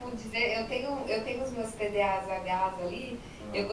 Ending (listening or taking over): listening